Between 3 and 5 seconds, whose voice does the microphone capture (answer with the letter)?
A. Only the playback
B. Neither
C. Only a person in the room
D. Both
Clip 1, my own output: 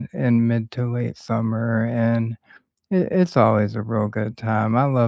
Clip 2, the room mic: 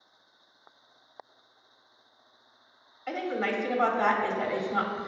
C